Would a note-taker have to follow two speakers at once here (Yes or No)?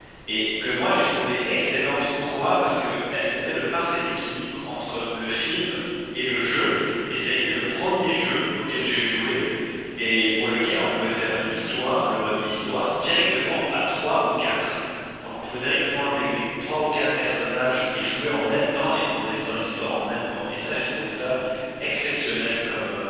No